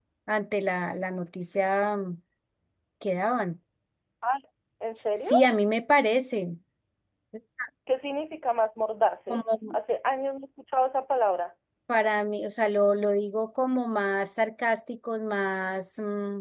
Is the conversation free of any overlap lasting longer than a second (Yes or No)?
Yes